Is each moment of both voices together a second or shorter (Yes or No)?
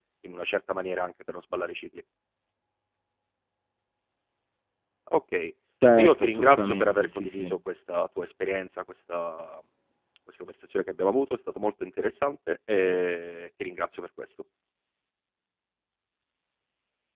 No